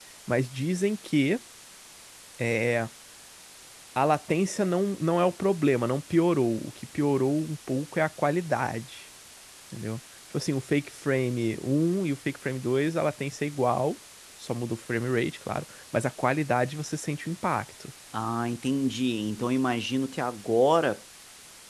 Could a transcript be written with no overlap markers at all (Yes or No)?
Yes